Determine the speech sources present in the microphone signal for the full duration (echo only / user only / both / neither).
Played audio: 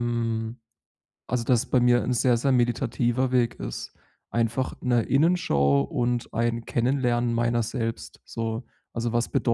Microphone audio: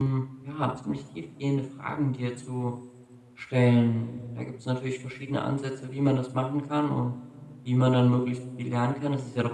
user only